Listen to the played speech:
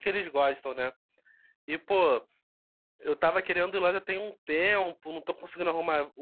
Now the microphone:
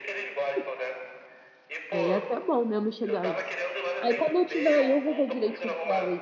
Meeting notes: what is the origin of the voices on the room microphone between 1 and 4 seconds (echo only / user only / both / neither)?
both